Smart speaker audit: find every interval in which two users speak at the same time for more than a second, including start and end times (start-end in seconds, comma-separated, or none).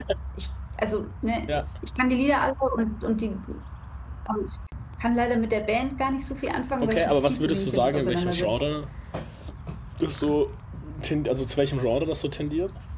6.8-8.5